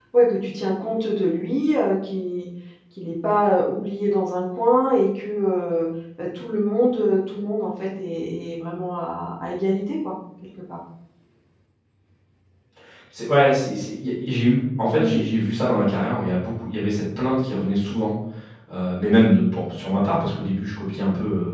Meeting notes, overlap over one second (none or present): none